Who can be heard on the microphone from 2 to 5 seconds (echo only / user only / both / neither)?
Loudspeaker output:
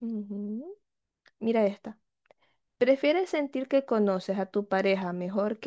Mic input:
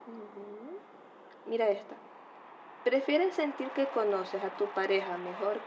echo only